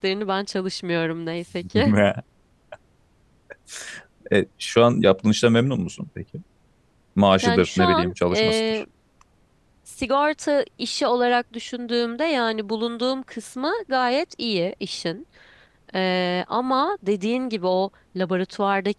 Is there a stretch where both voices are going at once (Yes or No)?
Yes